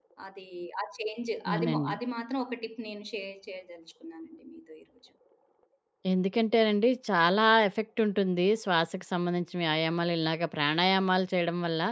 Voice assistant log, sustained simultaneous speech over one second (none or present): none